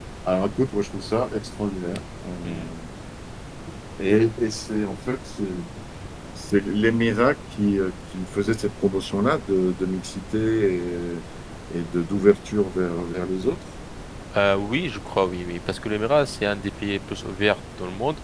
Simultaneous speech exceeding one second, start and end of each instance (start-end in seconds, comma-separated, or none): none